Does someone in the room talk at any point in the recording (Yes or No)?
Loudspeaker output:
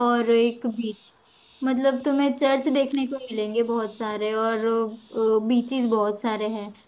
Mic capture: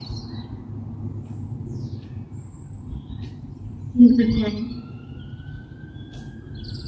Yes